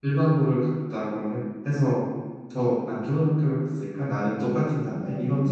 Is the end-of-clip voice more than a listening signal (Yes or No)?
Yes